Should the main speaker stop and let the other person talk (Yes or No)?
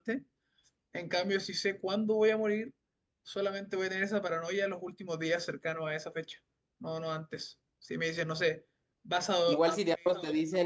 Yes